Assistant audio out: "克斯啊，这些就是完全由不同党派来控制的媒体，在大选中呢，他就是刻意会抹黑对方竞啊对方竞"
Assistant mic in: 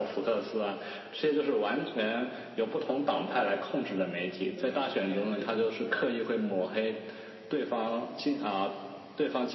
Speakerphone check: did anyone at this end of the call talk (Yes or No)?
Yes